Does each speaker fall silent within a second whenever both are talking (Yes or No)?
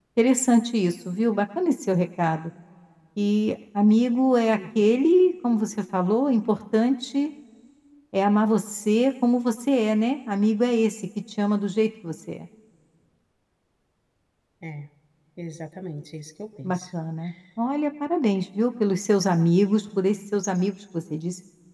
Yes